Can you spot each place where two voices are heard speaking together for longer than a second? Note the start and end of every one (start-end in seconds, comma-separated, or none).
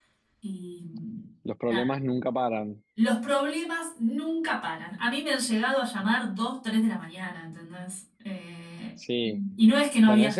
none